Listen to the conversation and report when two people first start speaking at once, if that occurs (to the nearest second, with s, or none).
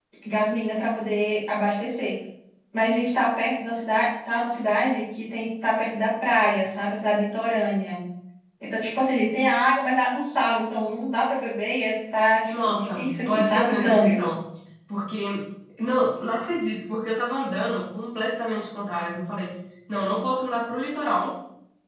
13 s